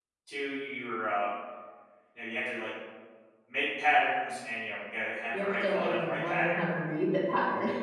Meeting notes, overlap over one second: present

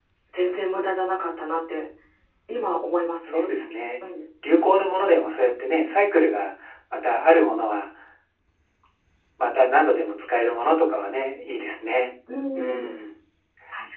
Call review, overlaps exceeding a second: none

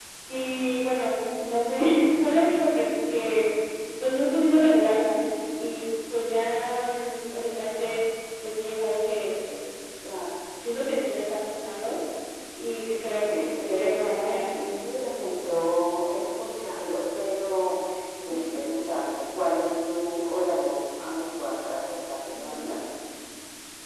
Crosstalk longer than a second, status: present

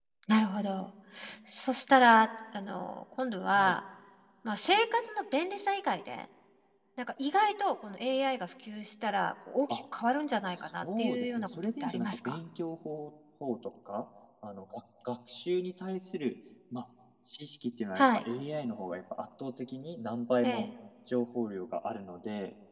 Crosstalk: present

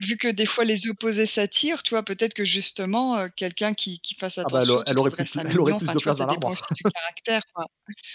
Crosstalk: present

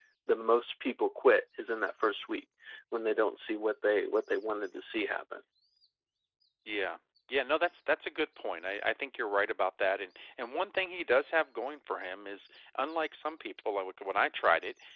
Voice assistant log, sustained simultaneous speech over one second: none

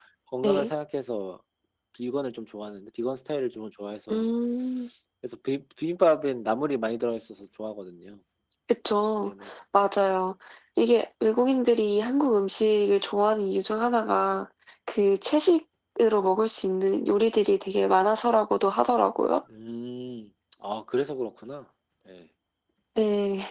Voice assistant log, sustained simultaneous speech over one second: none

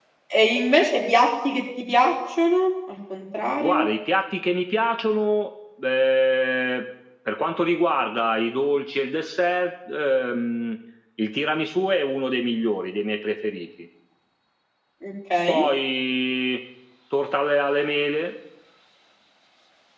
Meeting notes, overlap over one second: none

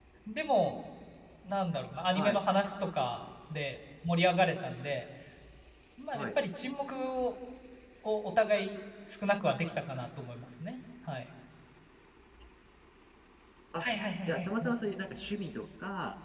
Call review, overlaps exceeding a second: none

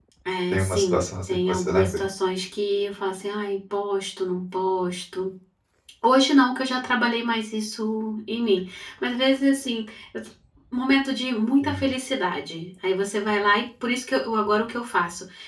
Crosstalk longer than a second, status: present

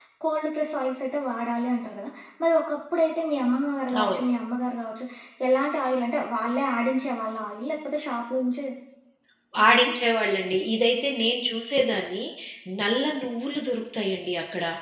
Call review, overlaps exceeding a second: none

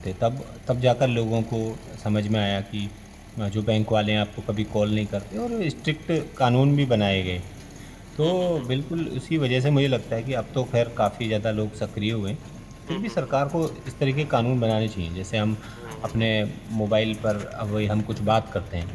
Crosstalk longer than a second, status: none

